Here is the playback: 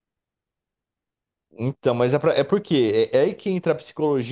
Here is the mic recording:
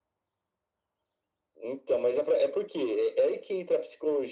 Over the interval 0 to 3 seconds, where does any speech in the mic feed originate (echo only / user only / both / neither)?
echo only